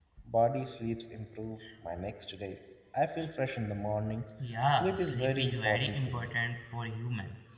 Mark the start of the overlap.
4.8 s

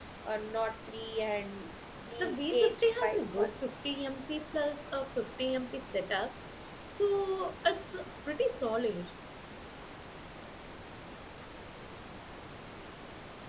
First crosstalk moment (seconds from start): 2.2 s

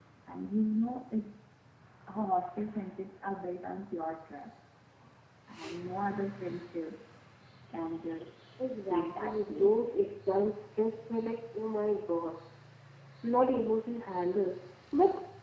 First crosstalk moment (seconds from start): 8.6 s

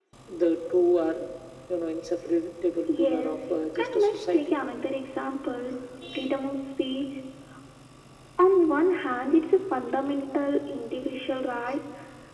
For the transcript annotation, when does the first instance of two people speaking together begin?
2.9 s

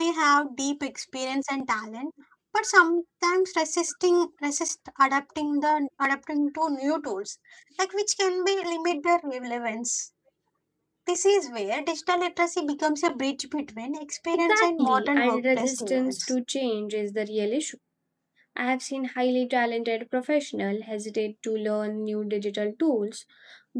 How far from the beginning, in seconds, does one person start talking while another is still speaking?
14.3 s

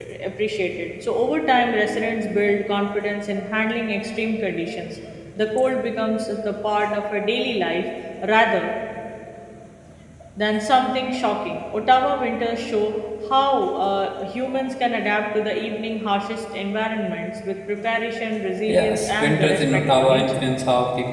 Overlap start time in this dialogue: 18.7 s

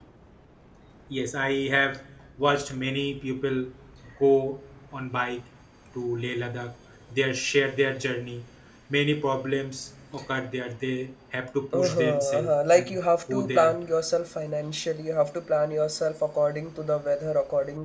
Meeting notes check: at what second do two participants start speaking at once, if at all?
11.7 s

